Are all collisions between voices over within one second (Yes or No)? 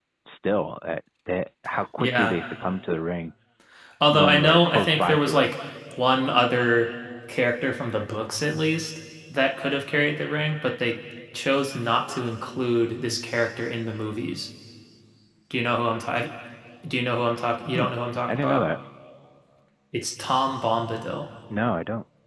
No